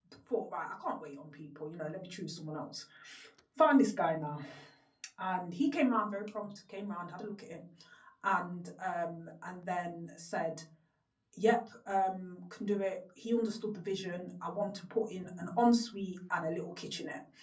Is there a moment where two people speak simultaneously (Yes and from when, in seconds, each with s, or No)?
No